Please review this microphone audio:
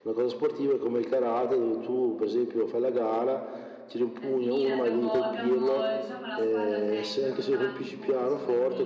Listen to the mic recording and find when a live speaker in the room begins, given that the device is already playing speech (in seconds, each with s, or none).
4.2 s